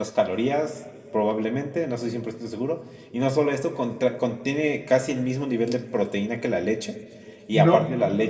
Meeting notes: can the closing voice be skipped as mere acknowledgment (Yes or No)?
Yes